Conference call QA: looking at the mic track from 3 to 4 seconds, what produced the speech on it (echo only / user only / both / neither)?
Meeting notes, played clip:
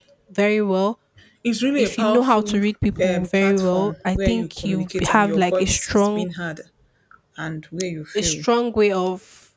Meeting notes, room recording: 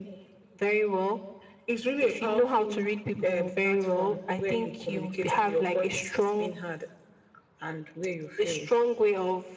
echo only